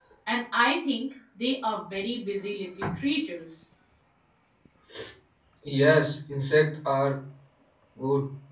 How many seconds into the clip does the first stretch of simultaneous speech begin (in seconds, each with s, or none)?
none